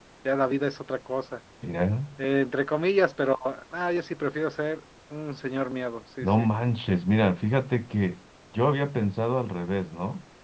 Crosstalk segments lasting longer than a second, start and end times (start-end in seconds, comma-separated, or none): none